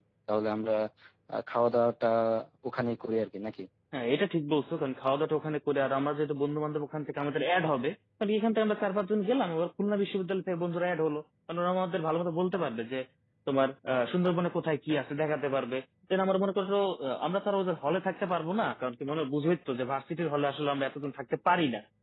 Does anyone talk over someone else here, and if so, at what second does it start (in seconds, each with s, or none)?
none